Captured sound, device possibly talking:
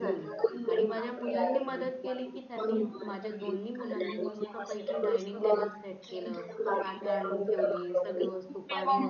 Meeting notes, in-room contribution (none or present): present